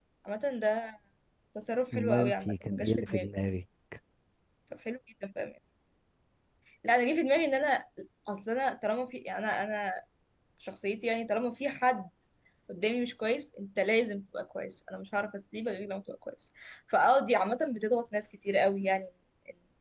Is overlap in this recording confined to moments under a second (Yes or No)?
No